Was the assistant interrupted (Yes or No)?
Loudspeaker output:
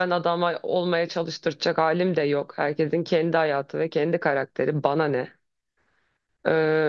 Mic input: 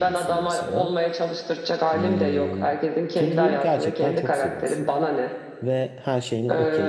Yes